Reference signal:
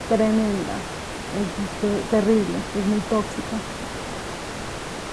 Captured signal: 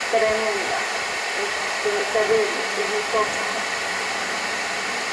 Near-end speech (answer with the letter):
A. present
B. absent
B